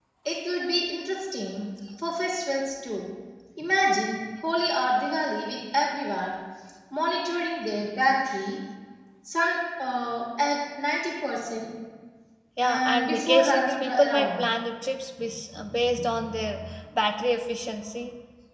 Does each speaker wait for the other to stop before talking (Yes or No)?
No